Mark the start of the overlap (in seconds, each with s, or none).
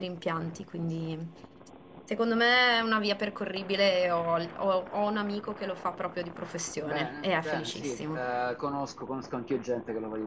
6.8 s